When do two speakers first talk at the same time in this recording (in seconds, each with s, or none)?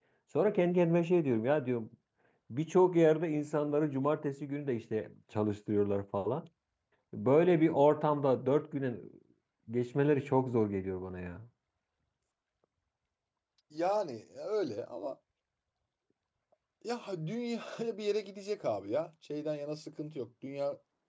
none